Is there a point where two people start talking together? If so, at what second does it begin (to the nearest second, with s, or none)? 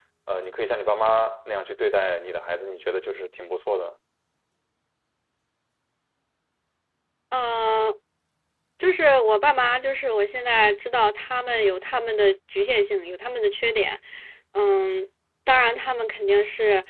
none